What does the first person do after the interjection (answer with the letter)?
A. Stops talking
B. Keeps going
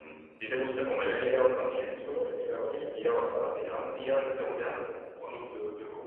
A